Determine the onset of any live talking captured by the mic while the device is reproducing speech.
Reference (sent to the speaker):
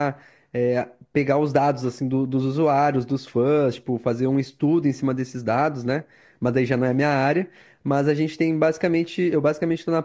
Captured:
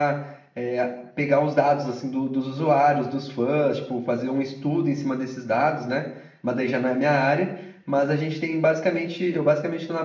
none

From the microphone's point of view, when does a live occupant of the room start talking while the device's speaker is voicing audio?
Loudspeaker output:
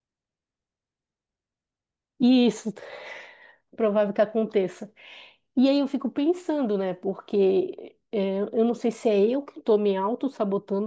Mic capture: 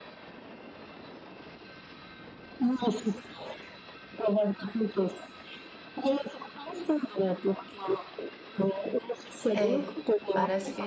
9.5 s

